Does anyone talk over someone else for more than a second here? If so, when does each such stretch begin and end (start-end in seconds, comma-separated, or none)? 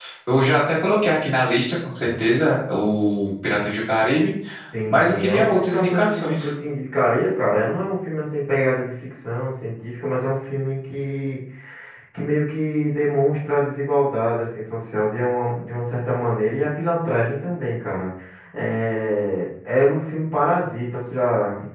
4.9-6.5